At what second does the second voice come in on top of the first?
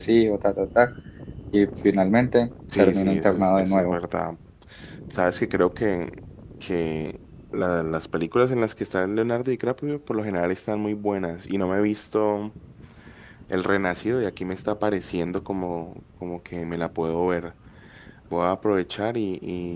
3 s

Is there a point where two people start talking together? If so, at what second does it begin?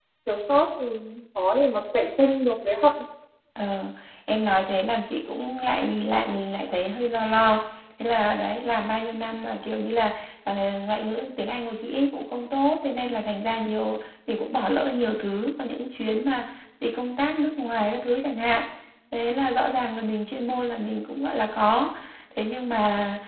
none

